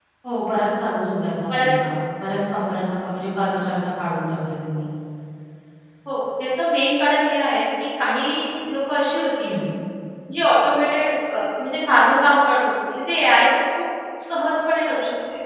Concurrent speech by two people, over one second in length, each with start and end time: none

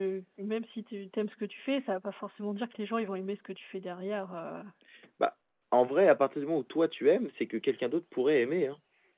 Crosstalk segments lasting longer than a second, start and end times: none

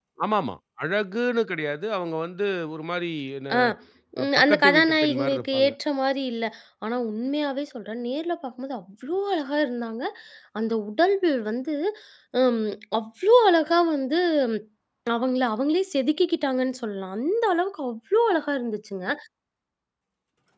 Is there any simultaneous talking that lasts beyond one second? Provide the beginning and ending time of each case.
4.2-5.7

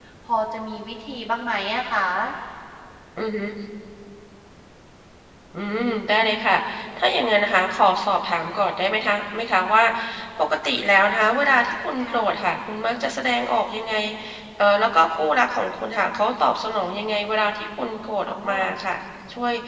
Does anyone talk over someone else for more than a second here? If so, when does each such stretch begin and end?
none

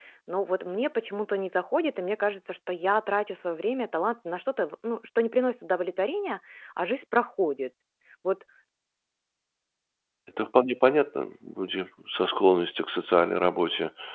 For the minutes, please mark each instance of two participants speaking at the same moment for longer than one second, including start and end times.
none

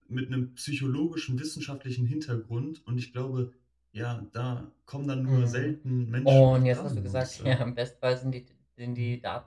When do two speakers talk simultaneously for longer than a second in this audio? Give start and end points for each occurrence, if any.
6.2-7.7

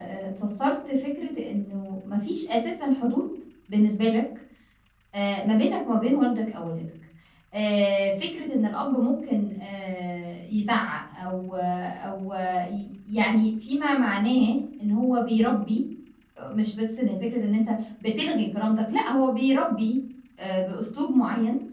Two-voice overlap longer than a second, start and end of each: none

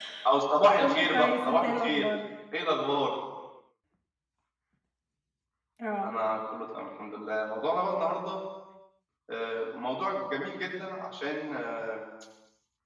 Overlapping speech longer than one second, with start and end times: 0.8-2.0

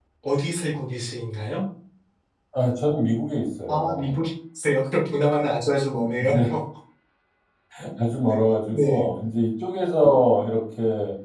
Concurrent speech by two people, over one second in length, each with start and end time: none

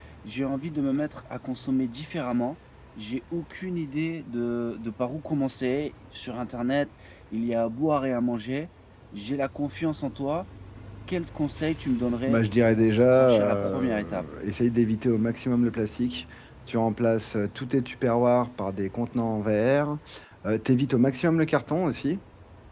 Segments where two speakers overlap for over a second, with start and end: 12.3-14.2

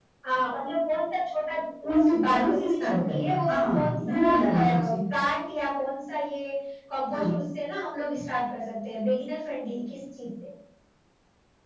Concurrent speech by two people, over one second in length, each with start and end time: 1.8-5.0

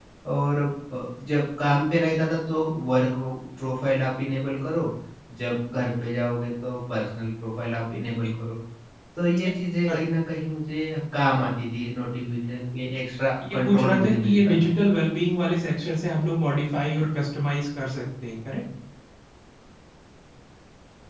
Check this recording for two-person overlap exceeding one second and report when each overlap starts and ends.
13.5-14.7

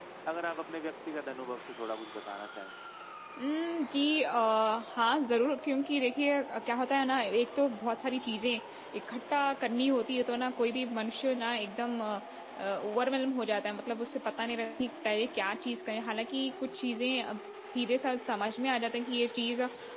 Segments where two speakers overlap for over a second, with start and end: none

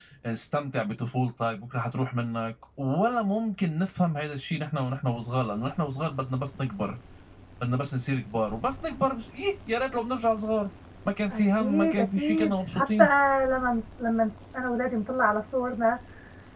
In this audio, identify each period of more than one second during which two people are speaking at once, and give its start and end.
11.3-13.0

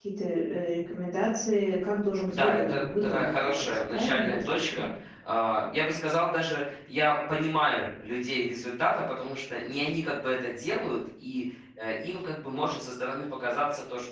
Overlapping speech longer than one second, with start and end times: 2.3-4.9

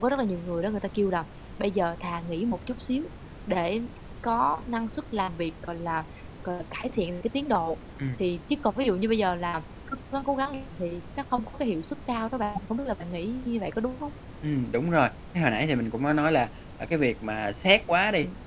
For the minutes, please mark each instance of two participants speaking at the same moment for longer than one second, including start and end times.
none

